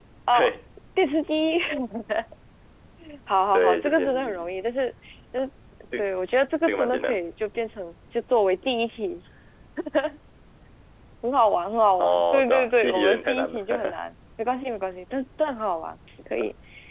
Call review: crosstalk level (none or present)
present